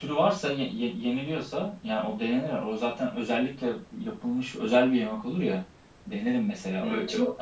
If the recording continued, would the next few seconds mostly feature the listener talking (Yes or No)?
Yes